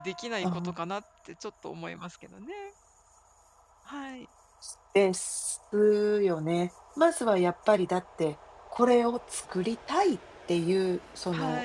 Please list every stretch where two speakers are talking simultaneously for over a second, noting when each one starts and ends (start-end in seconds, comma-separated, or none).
none